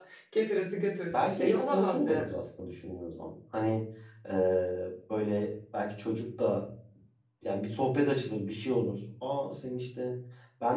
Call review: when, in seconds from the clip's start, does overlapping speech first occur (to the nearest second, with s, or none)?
1 s